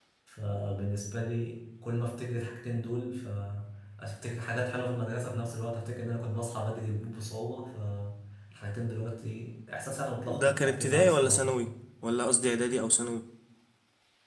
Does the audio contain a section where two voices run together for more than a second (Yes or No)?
Yes